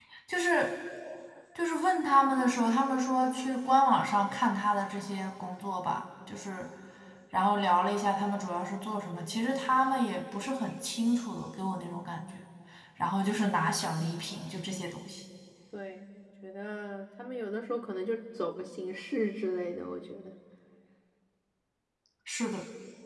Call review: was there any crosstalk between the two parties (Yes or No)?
No